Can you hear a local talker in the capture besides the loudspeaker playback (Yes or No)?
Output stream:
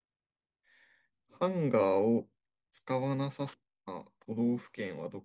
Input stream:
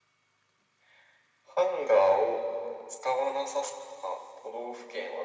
No